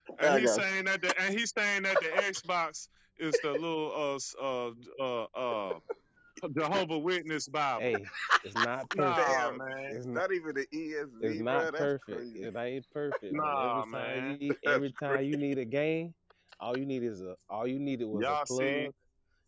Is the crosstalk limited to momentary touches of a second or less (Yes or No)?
No